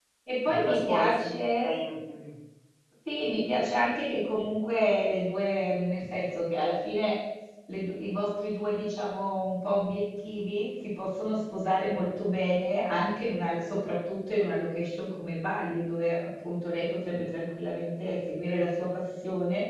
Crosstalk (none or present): present